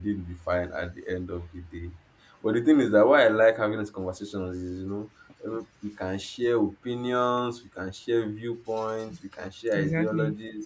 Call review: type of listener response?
listening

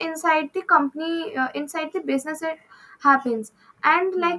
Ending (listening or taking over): listening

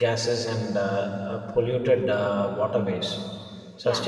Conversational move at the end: listening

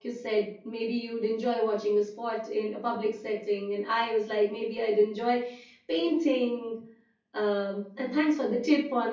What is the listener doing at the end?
listening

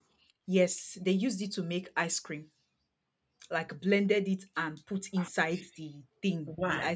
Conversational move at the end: listening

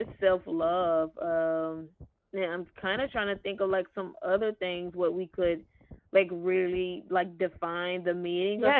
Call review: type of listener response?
taking over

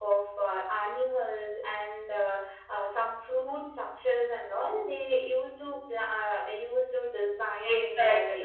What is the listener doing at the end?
taking over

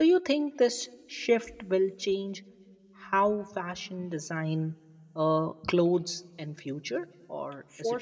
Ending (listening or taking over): taking over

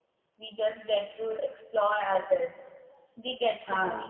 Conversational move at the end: listening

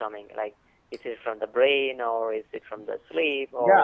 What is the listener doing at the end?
taking over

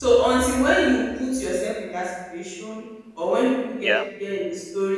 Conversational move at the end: listening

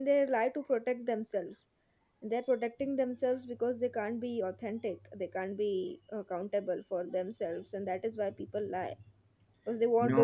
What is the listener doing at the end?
taking over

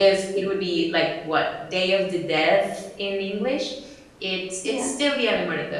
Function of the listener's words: listening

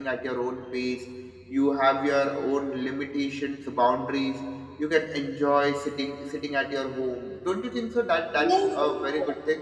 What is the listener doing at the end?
taking over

